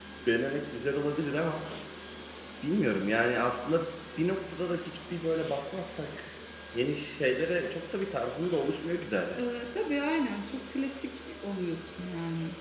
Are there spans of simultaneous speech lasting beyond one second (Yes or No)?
No